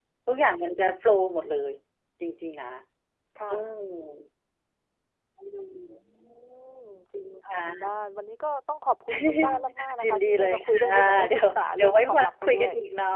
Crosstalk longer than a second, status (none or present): present